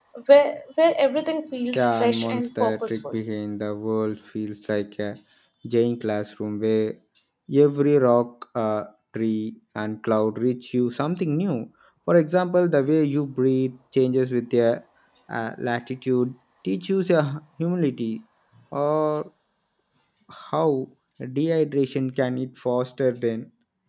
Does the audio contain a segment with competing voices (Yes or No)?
Yes